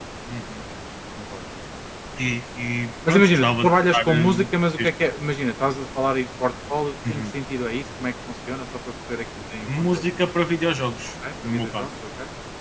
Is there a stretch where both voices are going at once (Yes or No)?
Yes